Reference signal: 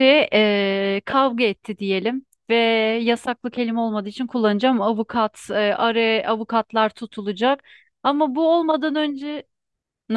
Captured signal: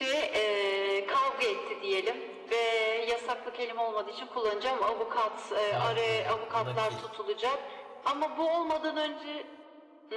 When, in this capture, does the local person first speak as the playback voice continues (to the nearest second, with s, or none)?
6 s